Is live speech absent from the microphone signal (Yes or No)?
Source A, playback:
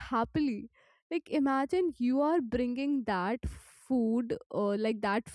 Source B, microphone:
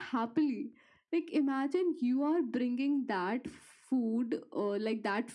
Yes